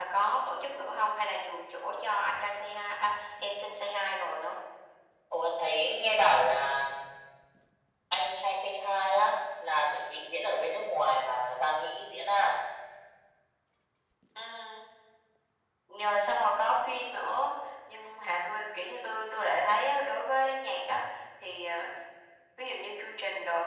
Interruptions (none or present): none